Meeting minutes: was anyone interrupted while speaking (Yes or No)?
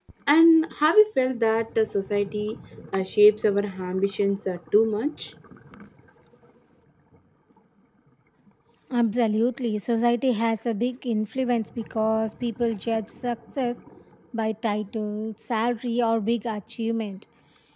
No